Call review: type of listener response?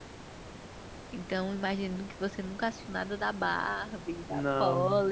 listening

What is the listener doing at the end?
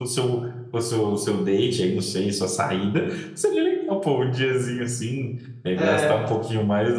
listening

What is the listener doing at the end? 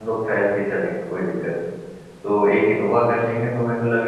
listening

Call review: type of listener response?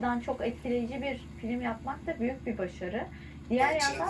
listening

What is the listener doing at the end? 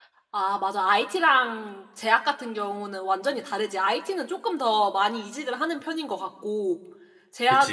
listening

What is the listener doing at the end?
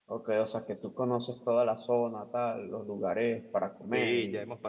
taking over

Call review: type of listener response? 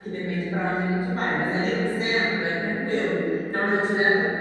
listening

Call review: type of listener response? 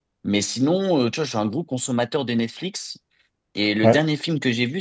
listening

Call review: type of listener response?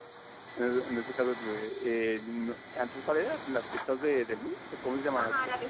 taking over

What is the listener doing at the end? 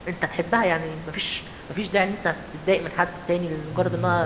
listening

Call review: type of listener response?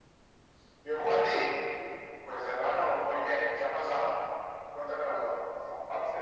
taking over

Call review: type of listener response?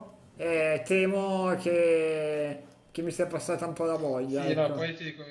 taking over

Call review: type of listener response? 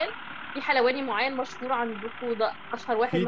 taking over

